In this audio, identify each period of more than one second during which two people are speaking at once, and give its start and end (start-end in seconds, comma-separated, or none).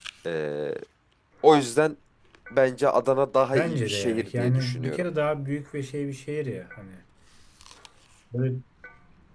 3.5-5.0